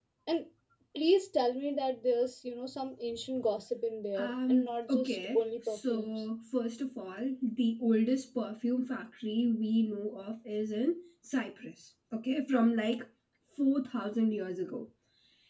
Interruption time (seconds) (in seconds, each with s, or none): 4.2 s